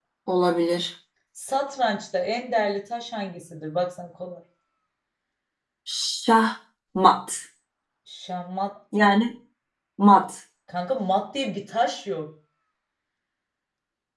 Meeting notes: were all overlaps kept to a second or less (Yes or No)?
Yes